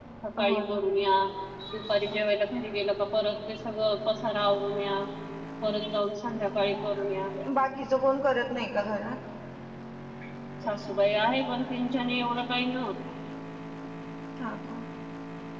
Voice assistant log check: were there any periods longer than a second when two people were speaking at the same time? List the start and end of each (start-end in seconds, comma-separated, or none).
none